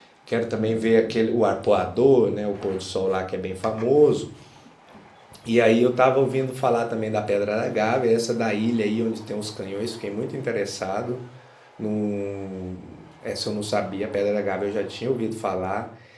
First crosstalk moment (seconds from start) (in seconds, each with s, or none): none